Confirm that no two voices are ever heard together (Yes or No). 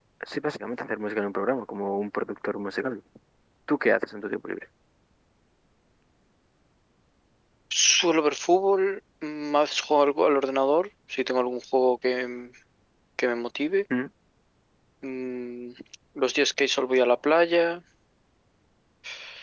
Yes